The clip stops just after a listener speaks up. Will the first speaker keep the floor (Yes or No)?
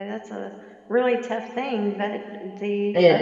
Yes